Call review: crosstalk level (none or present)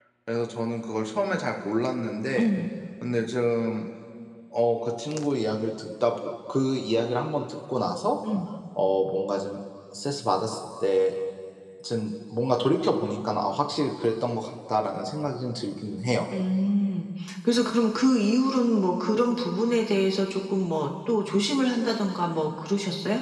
none